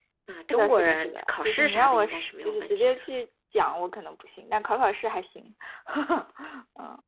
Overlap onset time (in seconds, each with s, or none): 0.5 s